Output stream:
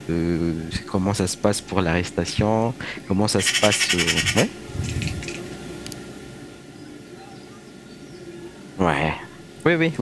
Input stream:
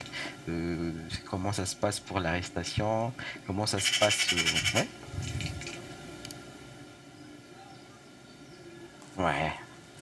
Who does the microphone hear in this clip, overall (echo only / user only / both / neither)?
echo only